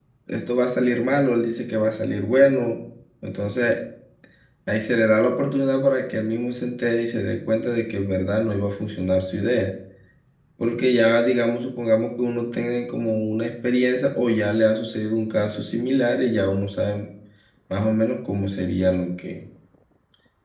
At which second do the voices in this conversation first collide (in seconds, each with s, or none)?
none